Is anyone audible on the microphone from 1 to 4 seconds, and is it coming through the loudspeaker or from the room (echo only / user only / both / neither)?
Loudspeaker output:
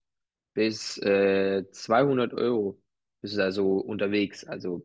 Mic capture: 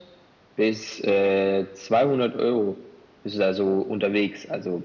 echo only